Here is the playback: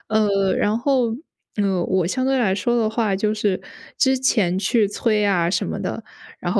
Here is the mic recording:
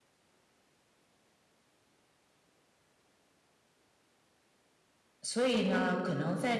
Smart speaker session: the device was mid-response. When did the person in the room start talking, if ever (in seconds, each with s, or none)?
5.2 s